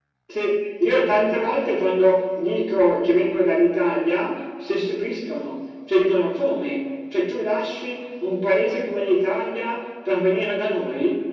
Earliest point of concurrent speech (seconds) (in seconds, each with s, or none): none